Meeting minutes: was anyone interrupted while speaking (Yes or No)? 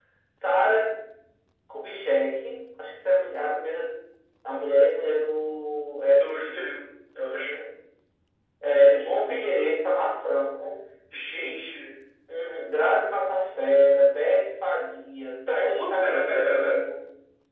Yes